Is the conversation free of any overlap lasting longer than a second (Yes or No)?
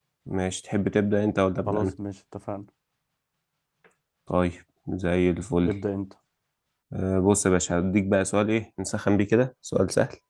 Yes